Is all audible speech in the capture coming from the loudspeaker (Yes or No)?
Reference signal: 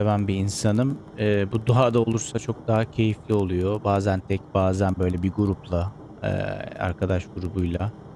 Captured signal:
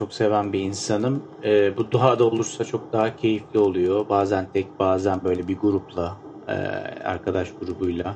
Yes